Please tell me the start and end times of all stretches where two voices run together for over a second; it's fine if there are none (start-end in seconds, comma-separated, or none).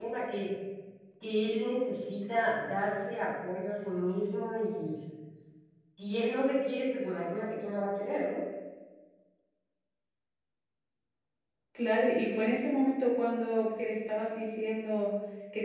none